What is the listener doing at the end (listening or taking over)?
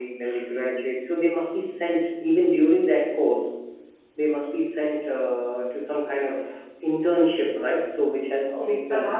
taking over